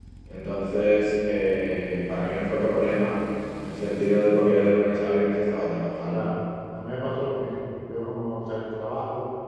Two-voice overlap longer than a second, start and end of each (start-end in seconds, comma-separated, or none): none